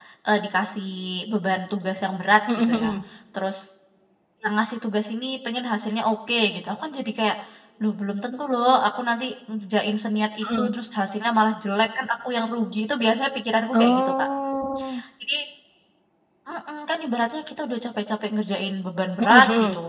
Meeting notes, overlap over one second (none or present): none